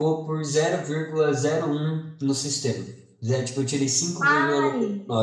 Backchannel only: Yes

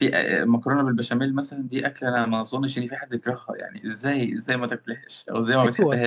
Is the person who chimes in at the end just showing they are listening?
No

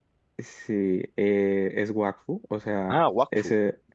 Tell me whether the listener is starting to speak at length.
No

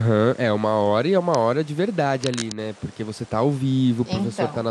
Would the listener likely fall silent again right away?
Yes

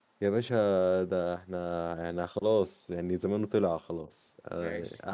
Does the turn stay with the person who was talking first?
No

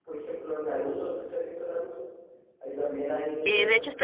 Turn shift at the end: Yes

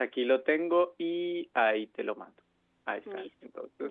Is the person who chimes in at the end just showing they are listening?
No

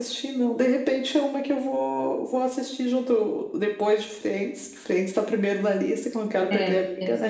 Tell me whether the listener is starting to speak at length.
Yes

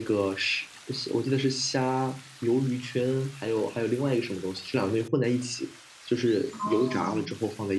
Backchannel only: No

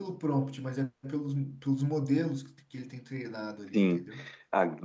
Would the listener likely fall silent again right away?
No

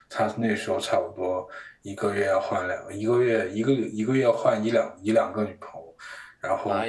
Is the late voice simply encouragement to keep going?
No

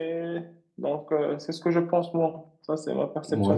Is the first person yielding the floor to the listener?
Yes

